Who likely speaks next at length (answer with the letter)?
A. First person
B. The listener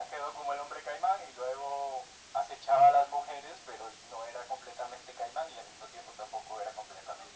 B